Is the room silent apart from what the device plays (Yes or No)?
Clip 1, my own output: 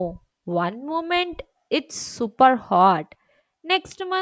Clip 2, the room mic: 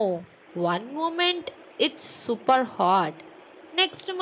Yes